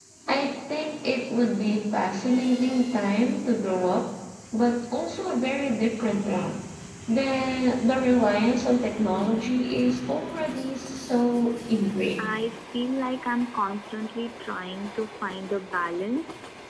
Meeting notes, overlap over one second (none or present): none